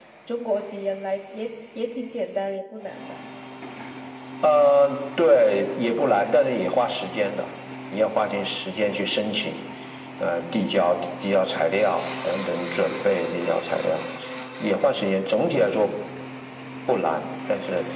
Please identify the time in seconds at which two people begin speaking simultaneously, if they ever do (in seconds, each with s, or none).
none